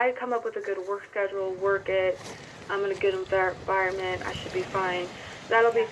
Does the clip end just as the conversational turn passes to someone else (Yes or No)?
No